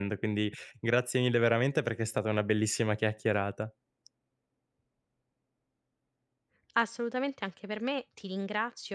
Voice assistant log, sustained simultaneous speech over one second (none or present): none